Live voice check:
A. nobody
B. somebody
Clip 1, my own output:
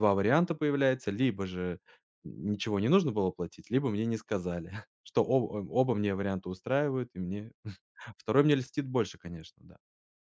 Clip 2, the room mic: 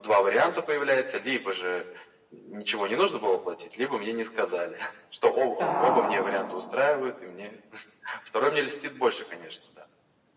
B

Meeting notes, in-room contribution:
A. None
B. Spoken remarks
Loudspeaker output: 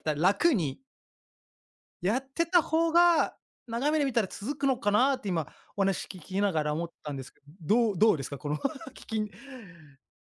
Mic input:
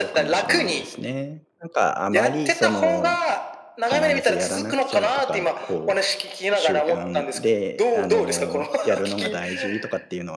B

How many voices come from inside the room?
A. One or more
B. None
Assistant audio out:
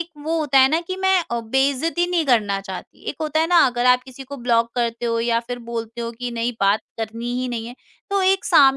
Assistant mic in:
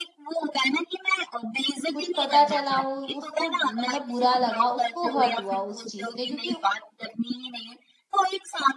A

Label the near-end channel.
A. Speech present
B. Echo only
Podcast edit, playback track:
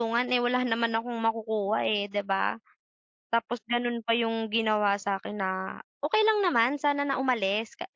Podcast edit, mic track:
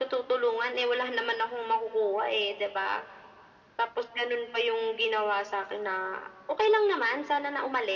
B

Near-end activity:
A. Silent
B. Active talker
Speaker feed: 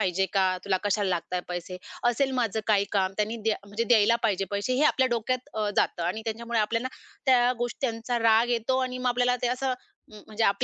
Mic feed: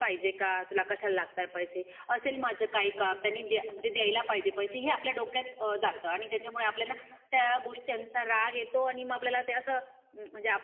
A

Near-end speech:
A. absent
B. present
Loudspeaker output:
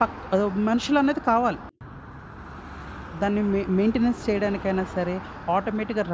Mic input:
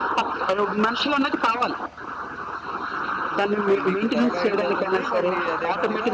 B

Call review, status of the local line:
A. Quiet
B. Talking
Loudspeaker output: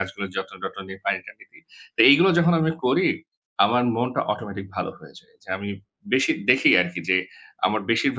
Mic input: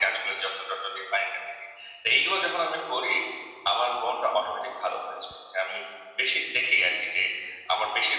A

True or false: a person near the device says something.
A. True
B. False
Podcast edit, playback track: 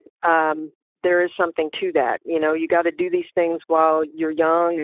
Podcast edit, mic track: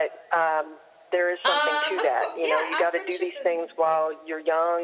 A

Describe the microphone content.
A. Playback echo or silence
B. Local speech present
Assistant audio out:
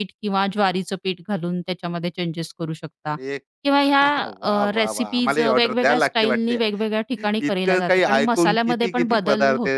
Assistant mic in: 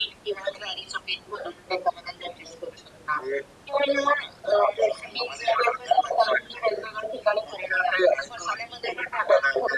A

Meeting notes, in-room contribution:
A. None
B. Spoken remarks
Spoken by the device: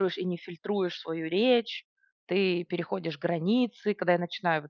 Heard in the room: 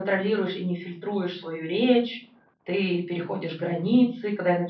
A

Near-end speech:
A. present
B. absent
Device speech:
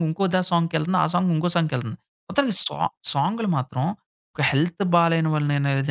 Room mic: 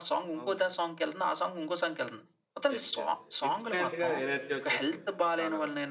A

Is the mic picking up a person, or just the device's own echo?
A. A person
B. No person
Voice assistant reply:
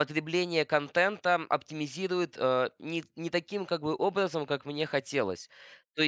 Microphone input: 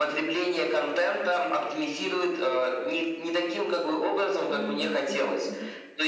A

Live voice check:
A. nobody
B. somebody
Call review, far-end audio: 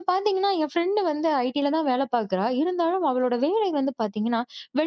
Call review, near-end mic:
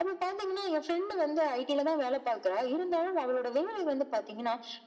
A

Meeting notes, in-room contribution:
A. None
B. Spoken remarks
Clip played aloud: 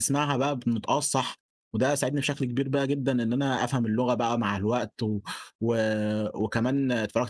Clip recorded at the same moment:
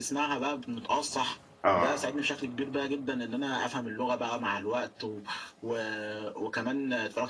B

